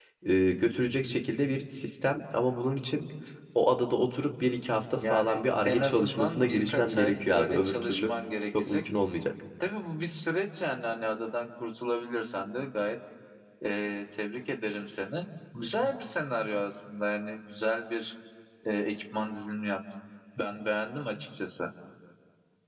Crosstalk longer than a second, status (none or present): present